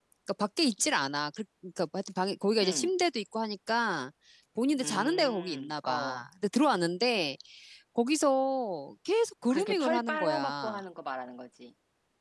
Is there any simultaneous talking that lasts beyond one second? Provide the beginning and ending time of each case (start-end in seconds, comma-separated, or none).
4.8-6.2, 9.5-10.8